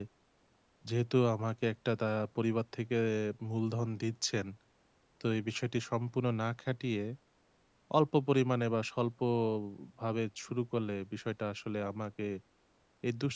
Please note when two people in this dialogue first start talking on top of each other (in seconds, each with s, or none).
none